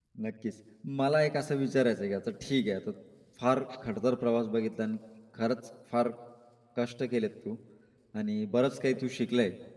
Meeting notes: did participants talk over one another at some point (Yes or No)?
No